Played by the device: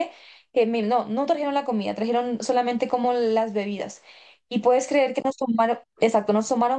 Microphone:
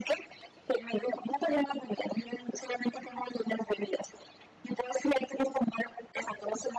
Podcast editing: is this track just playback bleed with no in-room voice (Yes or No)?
Yes